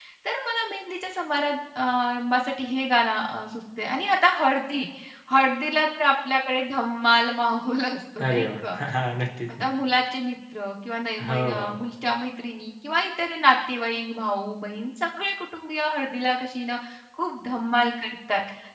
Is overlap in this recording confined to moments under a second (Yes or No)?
Yes